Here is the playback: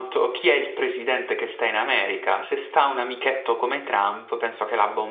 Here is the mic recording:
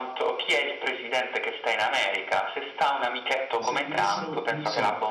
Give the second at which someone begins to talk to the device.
3.6 s

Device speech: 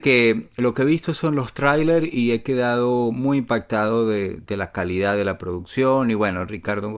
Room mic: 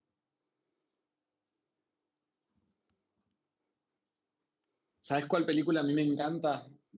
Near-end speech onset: 5.0 s

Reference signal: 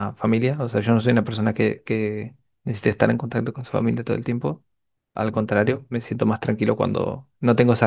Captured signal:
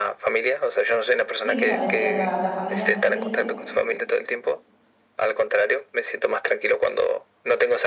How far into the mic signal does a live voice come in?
1.4 s

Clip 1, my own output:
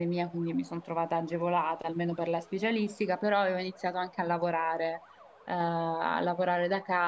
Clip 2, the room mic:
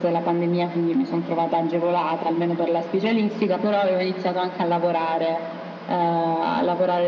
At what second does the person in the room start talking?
none

